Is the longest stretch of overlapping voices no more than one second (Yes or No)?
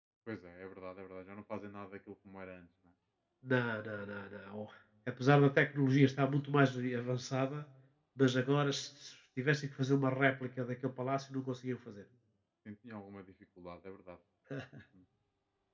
Yes